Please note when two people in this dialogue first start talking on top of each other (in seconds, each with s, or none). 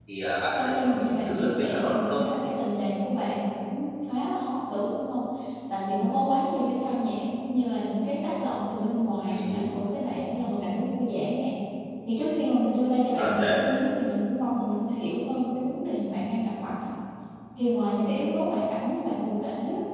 0.6 s